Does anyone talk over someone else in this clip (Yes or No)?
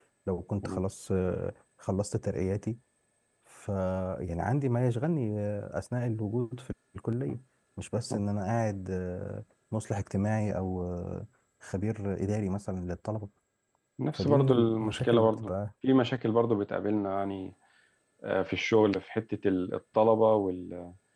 Yes